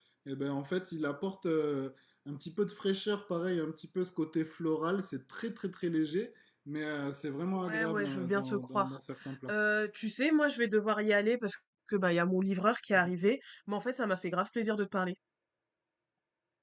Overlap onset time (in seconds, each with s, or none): 7.7 s